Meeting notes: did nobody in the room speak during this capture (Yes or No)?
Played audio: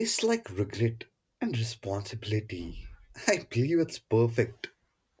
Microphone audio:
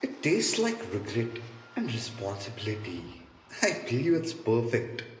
Yes